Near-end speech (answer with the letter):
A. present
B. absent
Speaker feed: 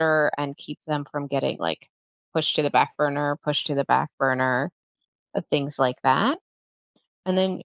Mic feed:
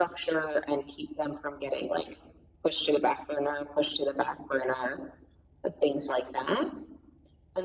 B